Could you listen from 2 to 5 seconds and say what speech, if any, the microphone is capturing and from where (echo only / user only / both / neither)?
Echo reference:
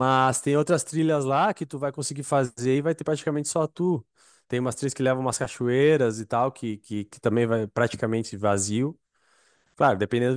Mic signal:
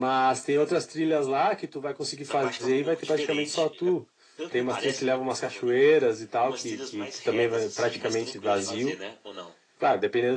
both